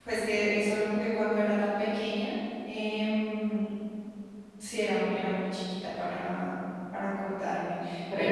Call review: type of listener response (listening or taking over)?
listening